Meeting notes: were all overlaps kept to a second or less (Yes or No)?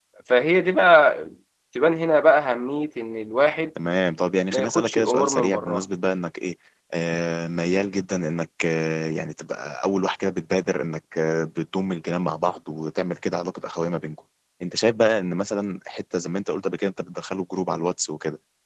No